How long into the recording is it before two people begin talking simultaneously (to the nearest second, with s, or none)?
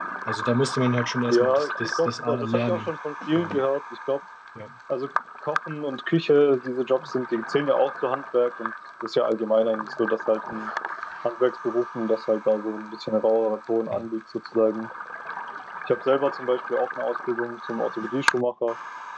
1 s